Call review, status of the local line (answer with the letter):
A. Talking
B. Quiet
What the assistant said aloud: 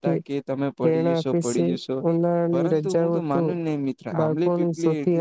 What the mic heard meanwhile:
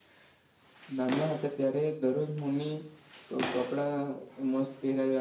A